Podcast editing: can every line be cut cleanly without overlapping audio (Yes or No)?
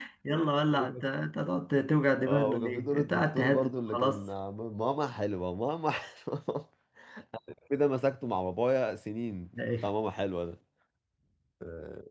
No